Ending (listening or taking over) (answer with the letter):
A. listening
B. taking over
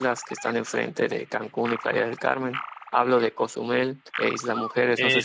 B